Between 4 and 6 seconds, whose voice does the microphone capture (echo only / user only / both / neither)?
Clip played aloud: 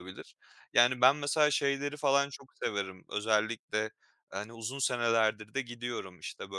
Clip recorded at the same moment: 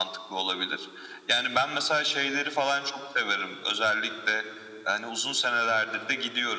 echo only